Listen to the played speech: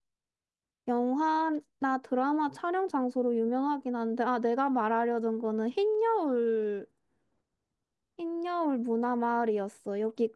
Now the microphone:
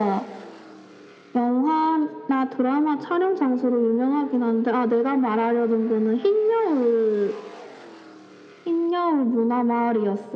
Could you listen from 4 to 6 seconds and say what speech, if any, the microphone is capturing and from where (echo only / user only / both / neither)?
echo only